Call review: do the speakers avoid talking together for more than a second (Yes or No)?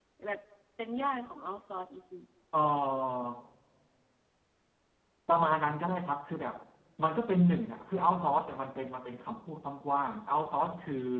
Yes